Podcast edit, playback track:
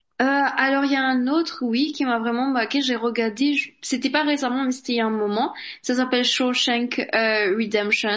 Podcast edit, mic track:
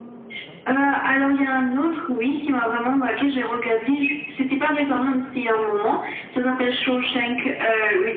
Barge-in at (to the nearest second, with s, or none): none